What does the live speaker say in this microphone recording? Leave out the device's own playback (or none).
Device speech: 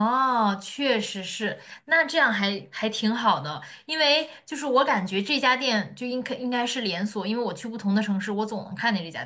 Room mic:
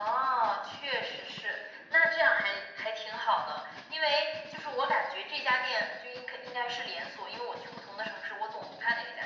none